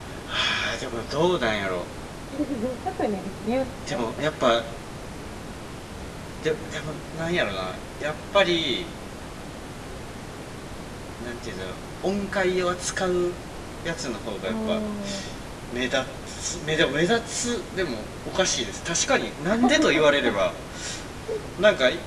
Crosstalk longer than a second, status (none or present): none